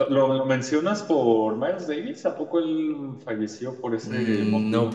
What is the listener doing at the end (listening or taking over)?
taking over